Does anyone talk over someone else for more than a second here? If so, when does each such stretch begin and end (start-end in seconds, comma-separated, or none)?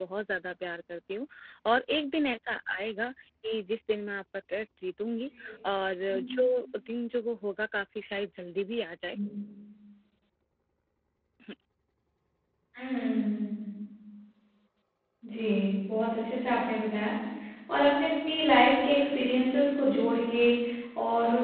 none